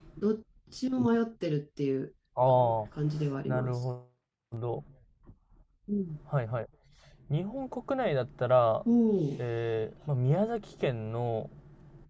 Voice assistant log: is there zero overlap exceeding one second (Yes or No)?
Yes